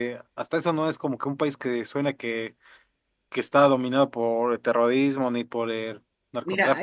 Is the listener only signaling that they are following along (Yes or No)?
No